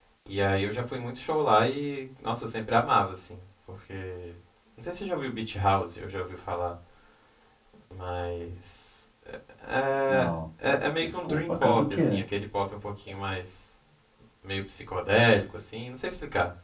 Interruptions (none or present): present